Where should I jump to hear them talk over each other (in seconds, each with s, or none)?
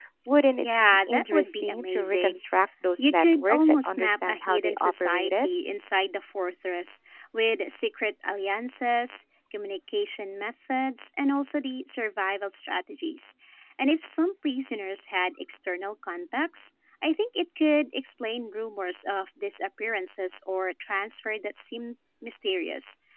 0.6 s